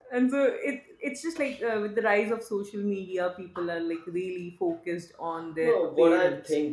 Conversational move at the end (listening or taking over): taking over